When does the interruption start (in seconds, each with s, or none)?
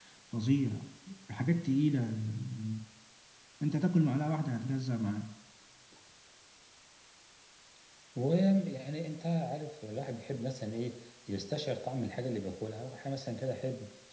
none